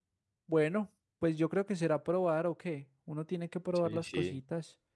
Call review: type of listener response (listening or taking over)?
taking over